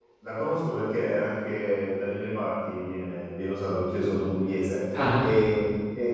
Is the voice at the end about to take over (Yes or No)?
No